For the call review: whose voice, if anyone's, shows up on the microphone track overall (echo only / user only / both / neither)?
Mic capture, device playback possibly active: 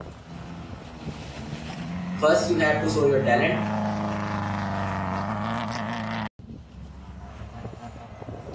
user only